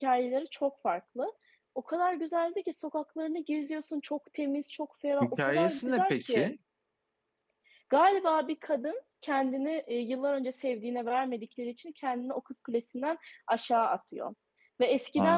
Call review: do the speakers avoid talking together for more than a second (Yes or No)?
No